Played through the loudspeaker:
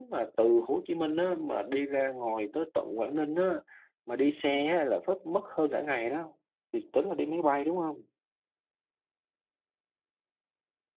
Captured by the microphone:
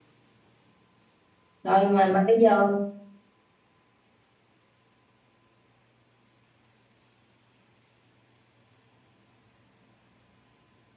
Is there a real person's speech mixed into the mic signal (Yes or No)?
Yes